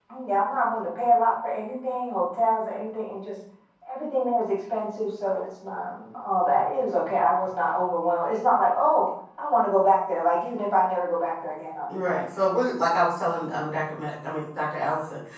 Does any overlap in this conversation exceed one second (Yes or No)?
No